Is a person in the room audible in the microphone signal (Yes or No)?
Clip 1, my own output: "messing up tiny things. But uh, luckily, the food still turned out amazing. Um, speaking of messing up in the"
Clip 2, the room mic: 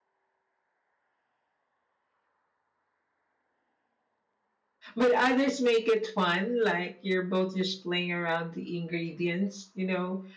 Yes